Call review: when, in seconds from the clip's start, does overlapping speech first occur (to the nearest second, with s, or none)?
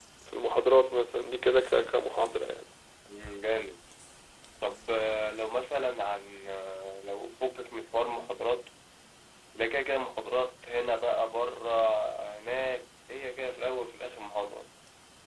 none